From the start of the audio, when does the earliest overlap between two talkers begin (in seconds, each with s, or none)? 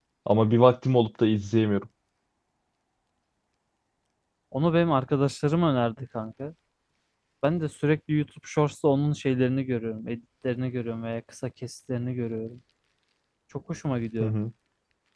none